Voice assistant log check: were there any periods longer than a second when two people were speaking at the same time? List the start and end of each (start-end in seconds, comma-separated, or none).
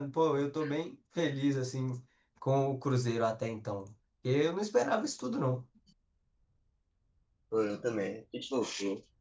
none